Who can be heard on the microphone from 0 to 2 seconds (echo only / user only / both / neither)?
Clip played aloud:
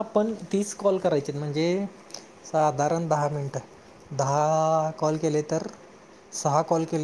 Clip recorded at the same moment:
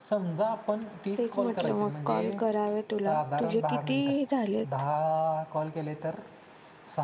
both